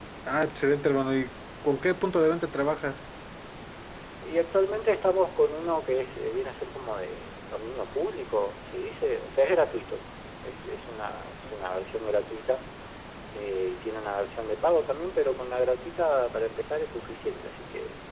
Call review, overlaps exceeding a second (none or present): none